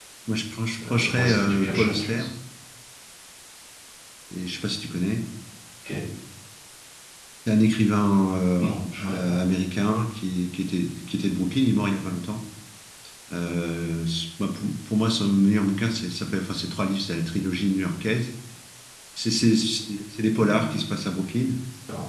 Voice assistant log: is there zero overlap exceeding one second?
No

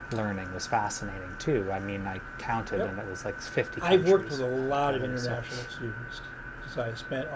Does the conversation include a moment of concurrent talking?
Yes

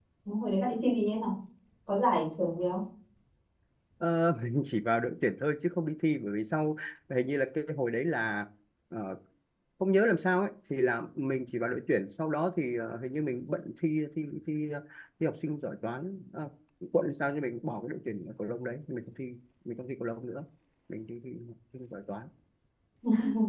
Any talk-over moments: No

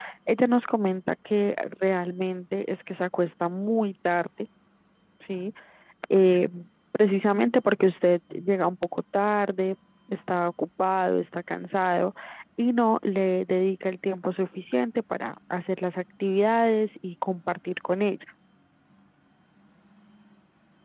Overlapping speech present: No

